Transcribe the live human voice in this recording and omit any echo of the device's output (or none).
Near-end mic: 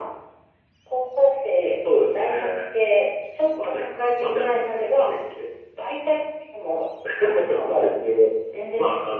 none